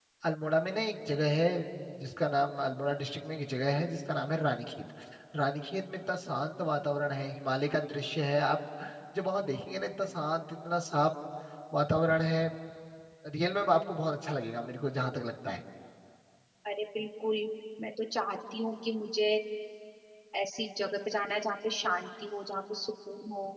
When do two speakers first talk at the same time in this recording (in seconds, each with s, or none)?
none